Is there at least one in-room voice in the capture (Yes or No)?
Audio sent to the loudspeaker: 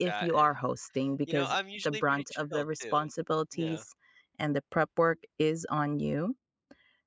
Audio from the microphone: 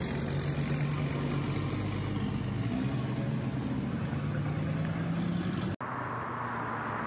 No